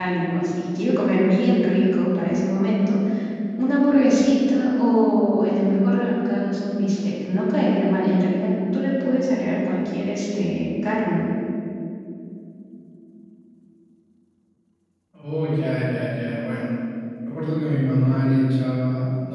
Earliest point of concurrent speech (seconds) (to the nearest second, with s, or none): none